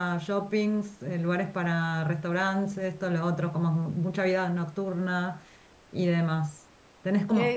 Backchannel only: Yes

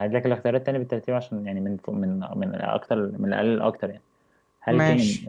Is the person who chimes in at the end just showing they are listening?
Yes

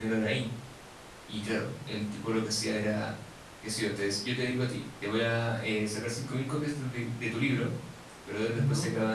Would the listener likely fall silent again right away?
Yes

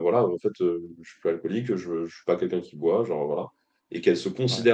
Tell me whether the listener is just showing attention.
Yes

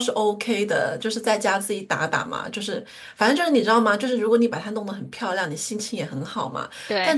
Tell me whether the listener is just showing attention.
Yes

